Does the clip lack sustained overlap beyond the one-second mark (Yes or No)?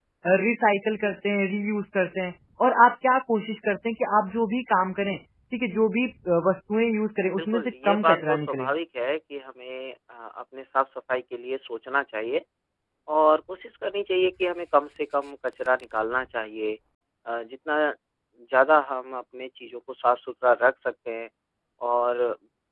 No